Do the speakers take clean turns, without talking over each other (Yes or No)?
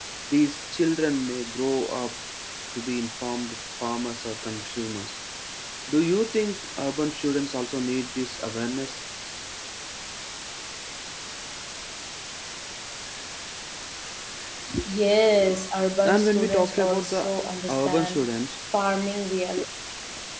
No